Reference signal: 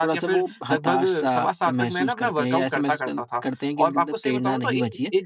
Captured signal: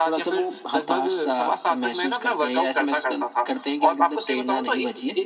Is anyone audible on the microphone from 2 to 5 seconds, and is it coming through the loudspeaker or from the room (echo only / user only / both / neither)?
echo only